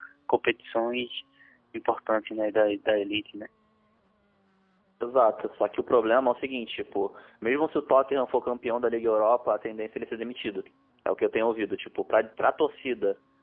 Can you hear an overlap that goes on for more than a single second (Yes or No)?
No